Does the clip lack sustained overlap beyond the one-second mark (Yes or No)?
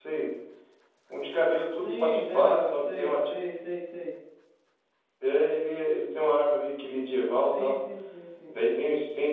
No